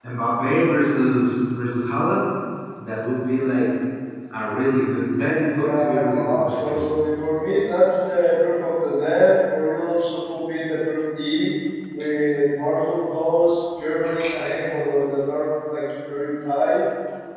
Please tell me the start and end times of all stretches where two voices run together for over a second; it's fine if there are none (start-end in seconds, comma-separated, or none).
5.5-6.9